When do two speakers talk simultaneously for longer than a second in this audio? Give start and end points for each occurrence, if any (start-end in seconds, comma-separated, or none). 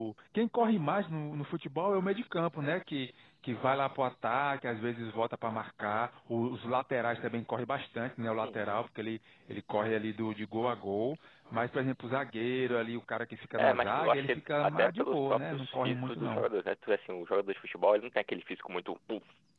13.6-16.4